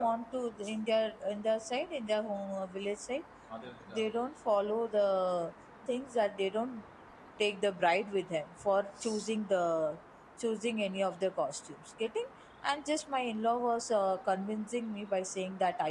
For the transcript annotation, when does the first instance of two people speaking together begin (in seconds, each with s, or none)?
none